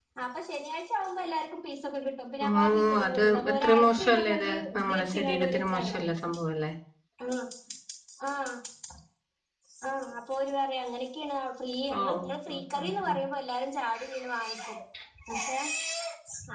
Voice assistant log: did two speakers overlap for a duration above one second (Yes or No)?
Yes